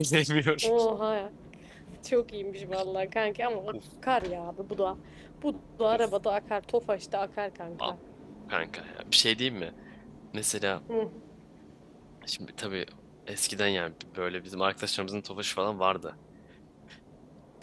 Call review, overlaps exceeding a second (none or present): none